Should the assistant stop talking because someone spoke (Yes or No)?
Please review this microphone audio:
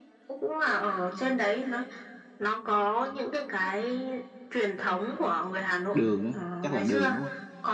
Yes